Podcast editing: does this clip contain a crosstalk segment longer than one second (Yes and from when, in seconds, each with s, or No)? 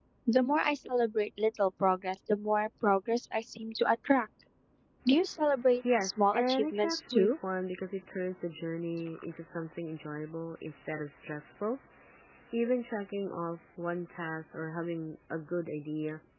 Yes, from 5.8 s